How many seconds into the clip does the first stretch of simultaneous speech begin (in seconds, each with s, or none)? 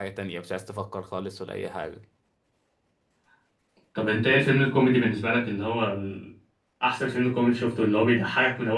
none